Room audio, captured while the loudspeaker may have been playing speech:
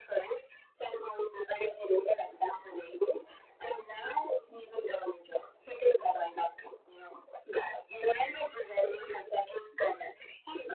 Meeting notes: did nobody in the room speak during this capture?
Yes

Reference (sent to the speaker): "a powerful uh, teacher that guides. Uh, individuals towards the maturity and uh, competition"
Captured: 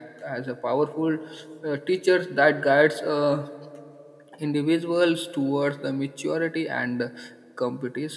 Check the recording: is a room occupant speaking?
No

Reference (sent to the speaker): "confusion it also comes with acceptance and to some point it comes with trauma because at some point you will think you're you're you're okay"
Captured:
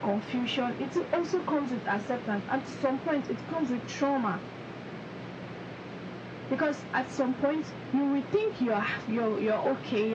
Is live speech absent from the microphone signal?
Yes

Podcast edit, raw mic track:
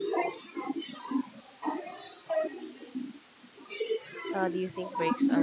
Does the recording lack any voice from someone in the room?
No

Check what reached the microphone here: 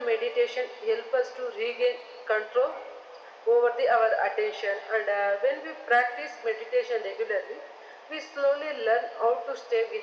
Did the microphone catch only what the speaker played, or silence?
Yes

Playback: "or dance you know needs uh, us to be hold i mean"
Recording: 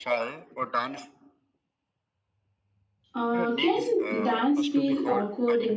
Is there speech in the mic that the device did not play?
Yes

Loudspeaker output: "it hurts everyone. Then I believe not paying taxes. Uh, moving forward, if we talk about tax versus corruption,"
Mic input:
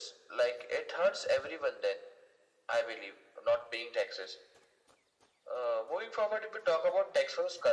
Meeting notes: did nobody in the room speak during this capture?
Yes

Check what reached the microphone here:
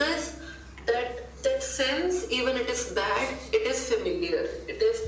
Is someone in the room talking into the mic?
No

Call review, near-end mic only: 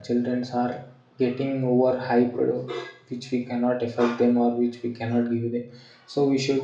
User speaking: Yes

